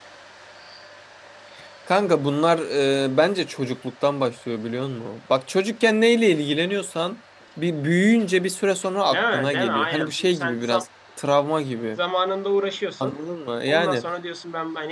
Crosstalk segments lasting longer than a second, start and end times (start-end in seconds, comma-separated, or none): 9.1-10.8